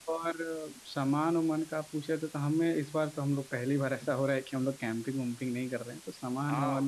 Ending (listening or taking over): taking over